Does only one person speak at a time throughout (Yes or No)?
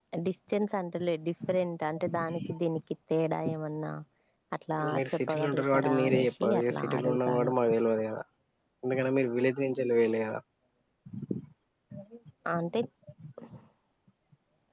No